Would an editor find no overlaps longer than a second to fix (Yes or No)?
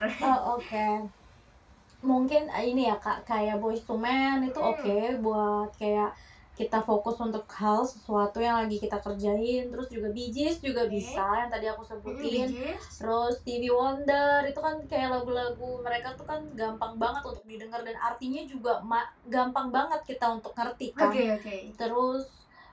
Yes